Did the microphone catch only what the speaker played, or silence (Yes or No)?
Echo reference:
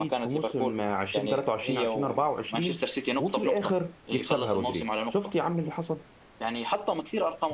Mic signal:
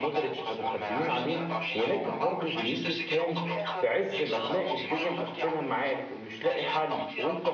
No